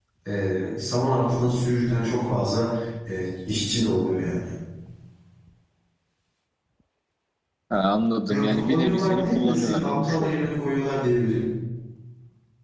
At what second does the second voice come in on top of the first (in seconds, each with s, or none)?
8.3 s